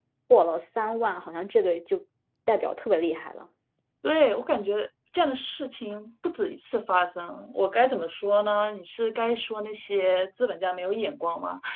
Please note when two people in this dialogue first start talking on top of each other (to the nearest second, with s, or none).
none